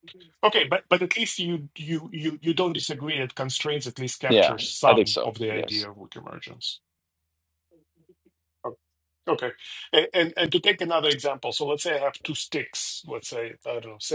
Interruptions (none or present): present